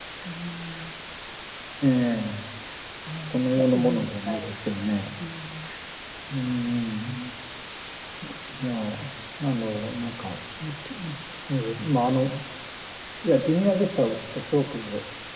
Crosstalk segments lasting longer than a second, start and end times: 3.3-4.5

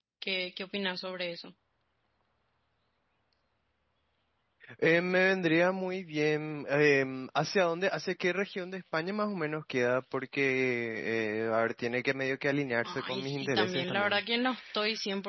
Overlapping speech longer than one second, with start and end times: 12.8-14.2

